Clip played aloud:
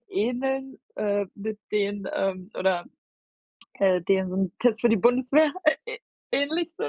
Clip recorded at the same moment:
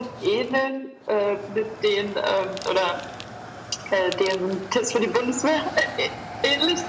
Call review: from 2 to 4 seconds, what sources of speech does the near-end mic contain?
echo only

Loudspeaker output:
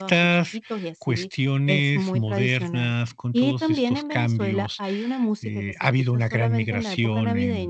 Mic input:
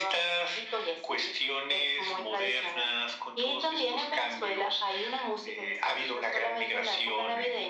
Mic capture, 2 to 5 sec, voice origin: echo only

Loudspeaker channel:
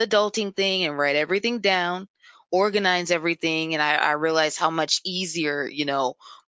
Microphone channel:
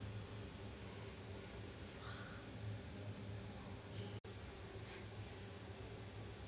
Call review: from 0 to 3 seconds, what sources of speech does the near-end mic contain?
neither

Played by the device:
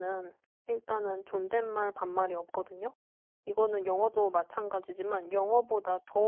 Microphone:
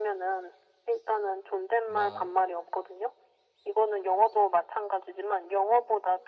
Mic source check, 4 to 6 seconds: echo only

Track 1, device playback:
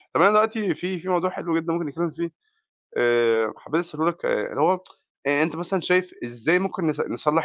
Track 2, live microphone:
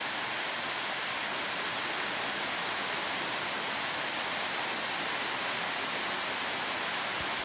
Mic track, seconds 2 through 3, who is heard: neither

